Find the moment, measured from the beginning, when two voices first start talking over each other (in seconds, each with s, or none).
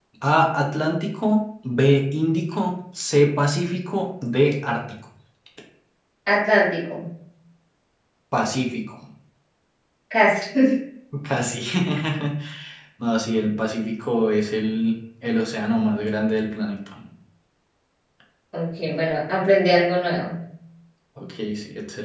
none